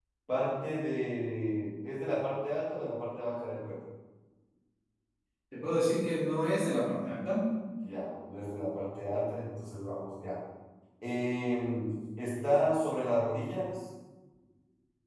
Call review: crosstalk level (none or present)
none